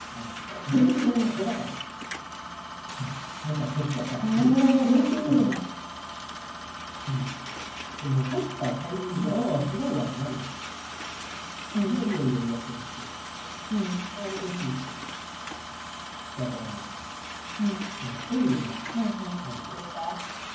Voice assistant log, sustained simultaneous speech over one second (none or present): present